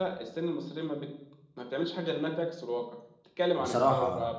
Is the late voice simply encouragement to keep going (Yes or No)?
Yes